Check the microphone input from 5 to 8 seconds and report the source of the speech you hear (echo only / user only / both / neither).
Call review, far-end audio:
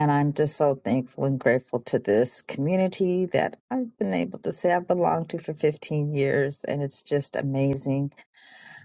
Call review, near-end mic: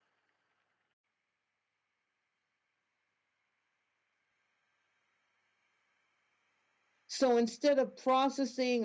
user only